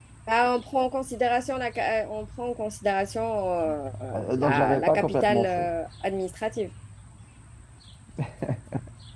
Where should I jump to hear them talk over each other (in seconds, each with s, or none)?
4.2 s